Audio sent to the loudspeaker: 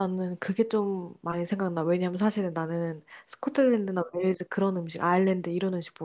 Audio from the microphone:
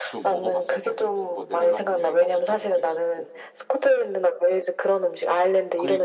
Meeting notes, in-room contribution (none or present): present